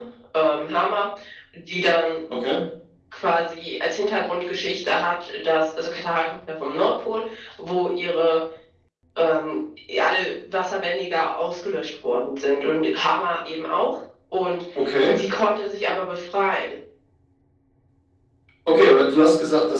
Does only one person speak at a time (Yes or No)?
Yes